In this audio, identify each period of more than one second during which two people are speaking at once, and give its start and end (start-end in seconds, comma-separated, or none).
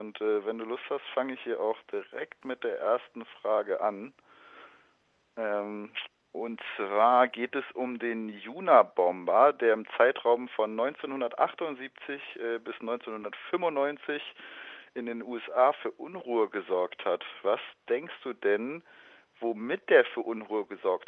none